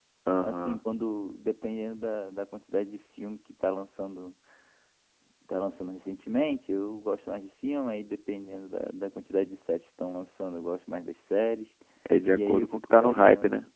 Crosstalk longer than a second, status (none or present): present